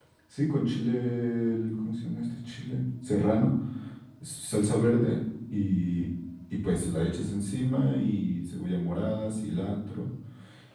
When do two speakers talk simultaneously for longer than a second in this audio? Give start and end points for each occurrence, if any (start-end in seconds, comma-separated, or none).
none